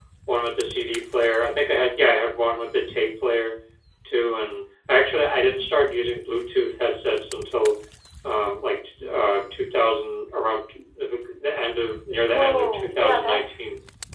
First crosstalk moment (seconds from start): 12.1 s

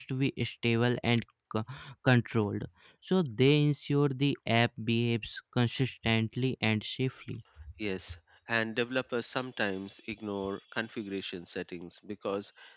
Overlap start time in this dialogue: none

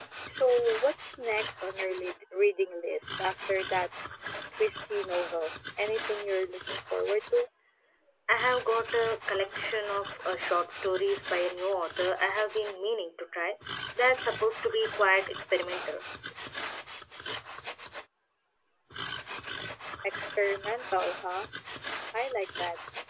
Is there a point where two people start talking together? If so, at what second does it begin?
none

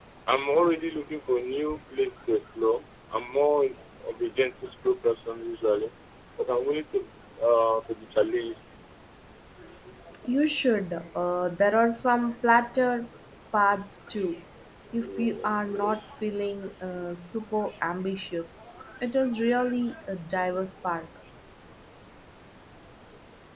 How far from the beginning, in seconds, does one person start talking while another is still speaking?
15.0 s

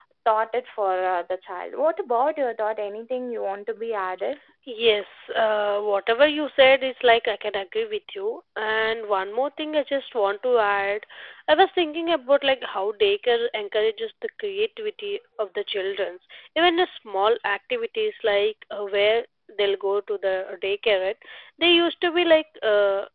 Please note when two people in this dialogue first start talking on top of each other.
none

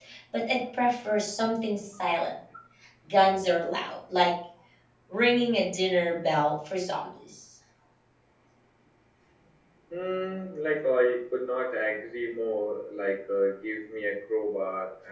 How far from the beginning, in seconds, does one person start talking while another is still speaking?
none

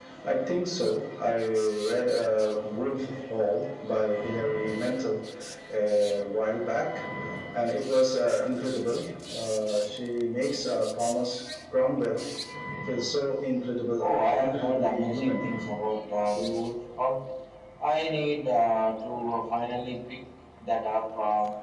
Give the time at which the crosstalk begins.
14.0 s

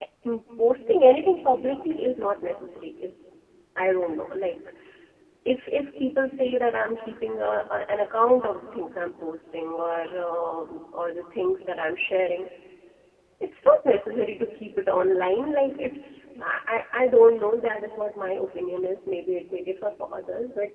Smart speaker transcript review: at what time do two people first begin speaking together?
none

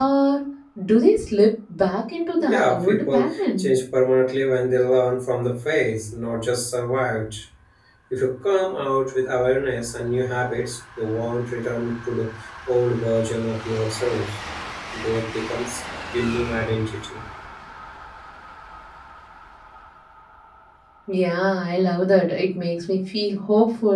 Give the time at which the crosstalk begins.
2.4 s

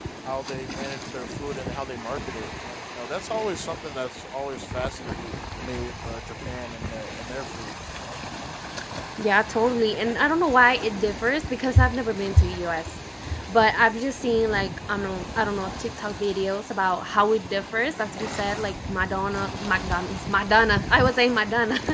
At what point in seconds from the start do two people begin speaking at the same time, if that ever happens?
none

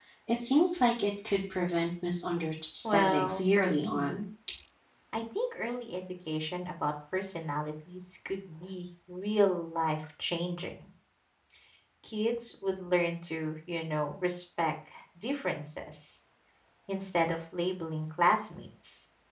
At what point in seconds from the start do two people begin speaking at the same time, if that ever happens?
2.8 s

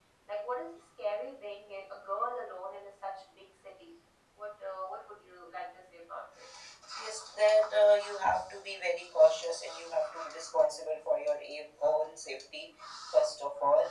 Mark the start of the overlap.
none

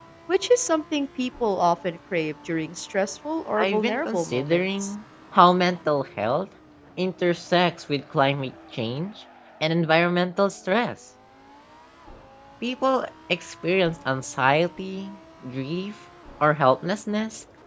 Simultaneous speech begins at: 3.6 s

